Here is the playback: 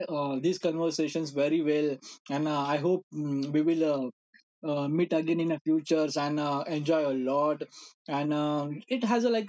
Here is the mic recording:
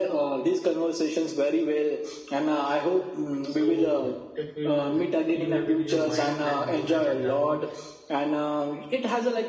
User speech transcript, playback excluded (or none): So if uh, you have in your mind, then go ahead and tell me.